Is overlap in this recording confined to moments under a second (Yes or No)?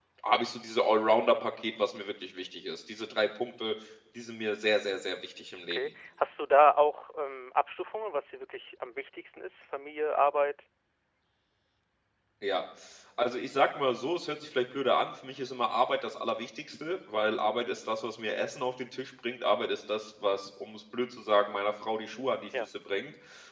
Yes